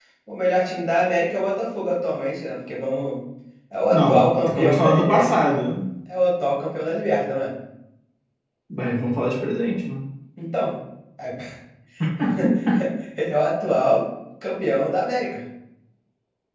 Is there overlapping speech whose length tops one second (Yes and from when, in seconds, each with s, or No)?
Yes, from 3.9 s